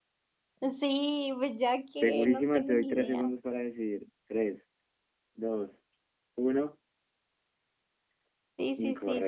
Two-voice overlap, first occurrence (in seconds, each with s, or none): 2.0 s